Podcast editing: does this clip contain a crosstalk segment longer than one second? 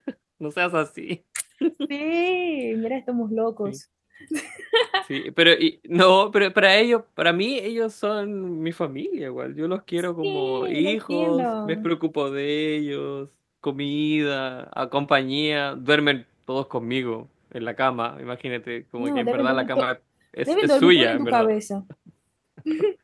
Yes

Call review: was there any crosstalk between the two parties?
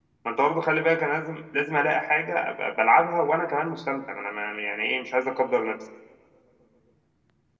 No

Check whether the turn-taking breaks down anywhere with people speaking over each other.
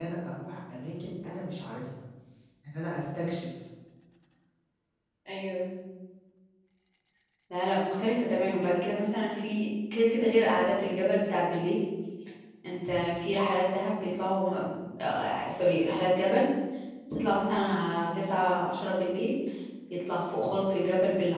No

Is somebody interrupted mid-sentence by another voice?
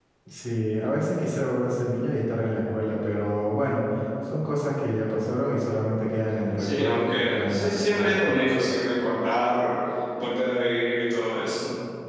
Yes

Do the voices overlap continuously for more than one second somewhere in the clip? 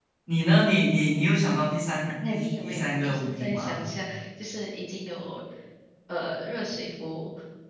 Yes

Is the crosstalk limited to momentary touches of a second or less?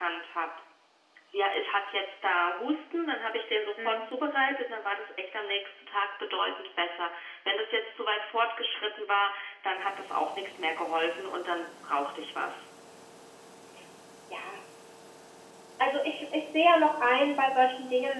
Yes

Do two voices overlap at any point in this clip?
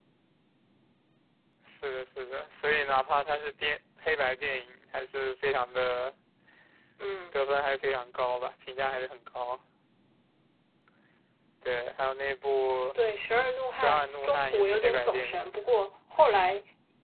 Yes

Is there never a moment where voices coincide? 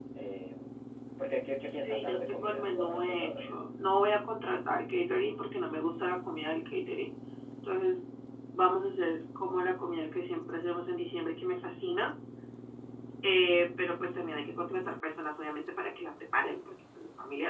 No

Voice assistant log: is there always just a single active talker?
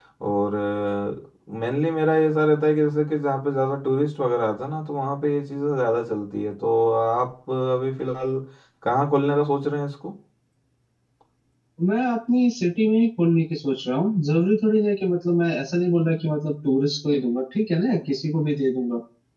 Yes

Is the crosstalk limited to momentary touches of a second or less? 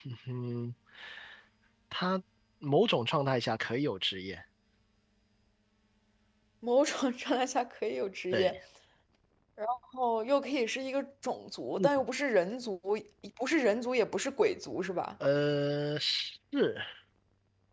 Yes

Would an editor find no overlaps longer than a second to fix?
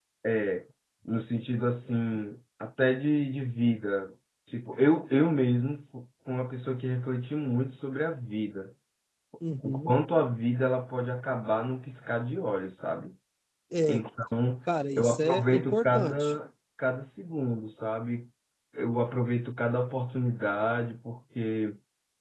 No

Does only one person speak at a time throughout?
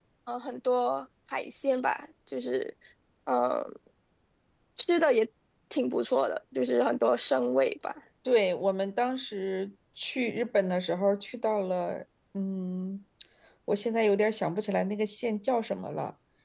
Yes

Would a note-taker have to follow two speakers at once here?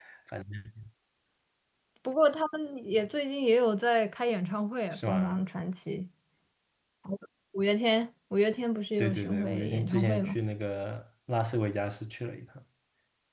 Yes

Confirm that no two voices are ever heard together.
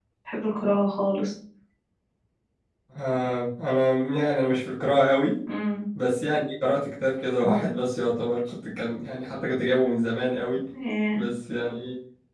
Yes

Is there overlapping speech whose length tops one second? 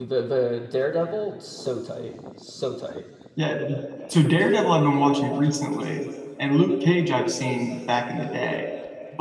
No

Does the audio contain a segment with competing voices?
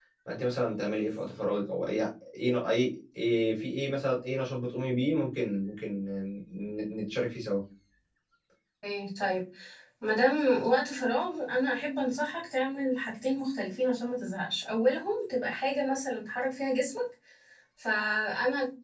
No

